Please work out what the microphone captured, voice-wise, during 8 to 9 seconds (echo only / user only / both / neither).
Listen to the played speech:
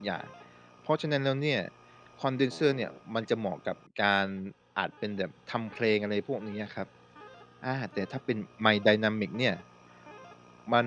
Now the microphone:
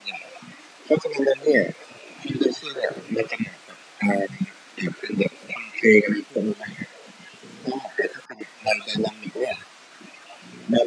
echo only